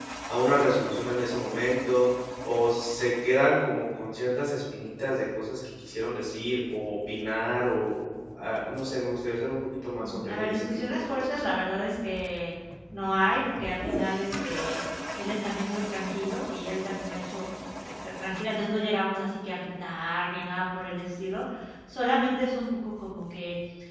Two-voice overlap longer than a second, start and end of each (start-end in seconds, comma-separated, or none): 10.0-11.2